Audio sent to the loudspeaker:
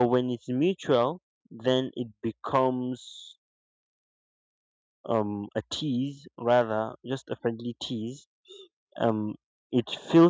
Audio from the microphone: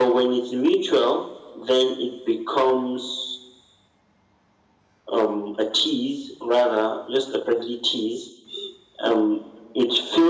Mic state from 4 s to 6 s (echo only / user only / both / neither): echo only